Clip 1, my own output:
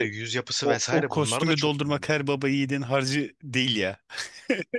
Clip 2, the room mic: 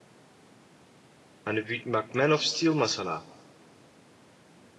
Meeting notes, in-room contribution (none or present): present